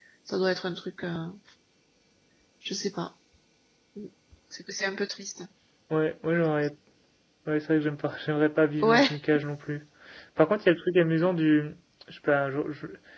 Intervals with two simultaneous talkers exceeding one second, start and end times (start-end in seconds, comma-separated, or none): none